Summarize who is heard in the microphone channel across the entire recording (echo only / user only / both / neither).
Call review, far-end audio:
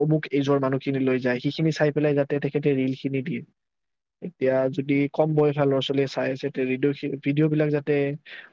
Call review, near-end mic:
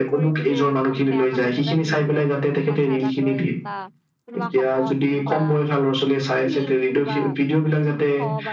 both